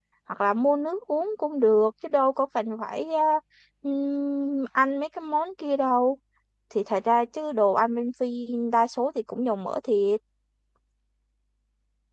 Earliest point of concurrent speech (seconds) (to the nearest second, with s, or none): none